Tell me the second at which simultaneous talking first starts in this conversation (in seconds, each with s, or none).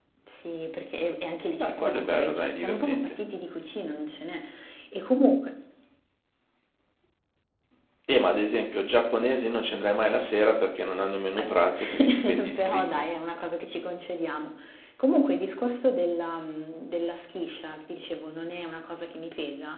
1.6 s